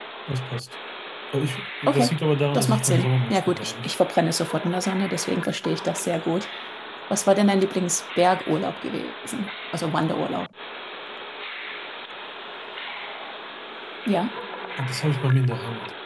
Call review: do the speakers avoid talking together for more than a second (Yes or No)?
No